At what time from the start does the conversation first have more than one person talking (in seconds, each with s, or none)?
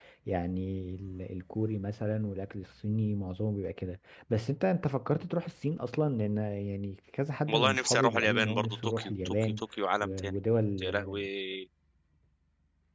7.5 s